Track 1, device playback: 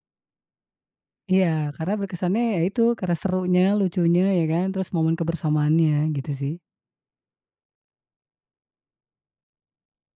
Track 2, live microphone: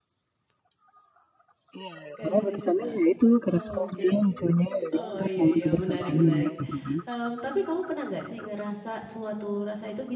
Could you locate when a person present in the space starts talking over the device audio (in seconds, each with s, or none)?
2.2 s